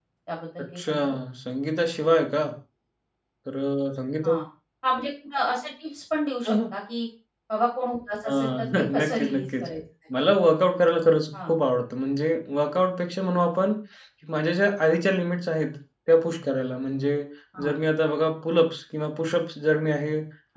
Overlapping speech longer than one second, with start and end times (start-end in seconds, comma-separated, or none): 8.2-9.6